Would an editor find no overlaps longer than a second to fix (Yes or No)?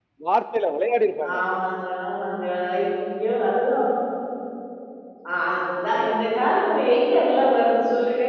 Yes